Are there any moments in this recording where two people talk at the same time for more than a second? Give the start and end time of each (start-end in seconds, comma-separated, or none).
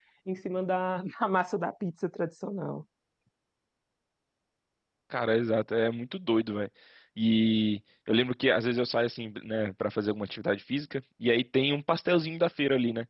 none